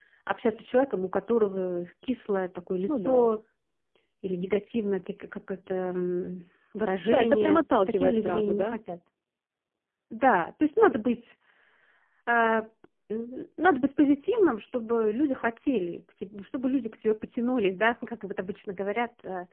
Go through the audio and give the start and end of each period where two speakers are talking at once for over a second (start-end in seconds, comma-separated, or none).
7.1-8.8